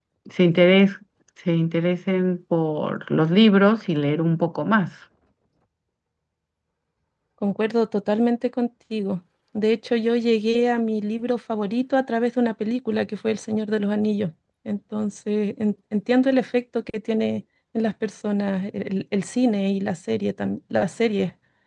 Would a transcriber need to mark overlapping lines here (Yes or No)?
No